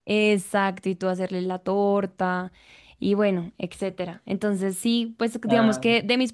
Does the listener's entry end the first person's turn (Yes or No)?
No